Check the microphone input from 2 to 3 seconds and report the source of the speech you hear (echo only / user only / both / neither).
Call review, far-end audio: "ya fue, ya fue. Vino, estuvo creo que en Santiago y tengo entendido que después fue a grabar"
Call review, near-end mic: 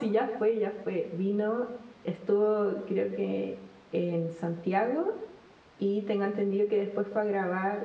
echo only